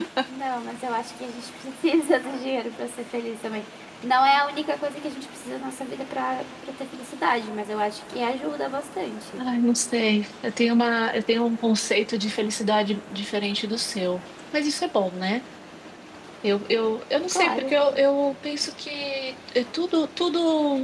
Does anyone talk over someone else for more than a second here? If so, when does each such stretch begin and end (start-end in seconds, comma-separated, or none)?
none